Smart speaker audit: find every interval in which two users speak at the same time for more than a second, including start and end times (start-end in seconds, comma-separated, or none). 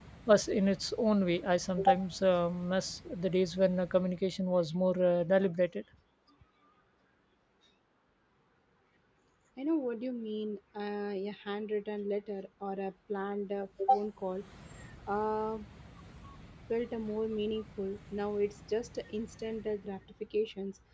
none